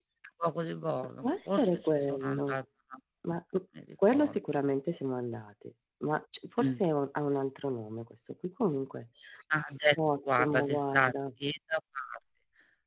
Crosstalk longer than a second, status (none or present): present